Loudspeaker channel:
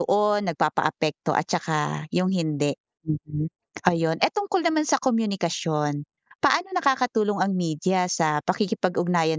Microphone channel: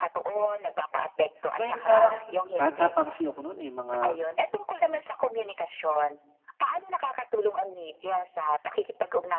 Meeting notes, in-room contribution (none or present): present